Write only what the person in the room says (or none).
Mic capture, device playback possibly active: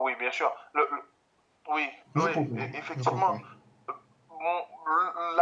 je comprends. Je comprends.